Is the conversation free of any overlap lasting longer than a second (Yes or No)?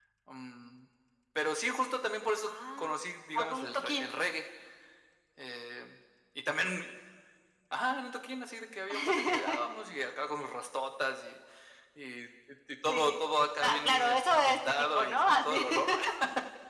No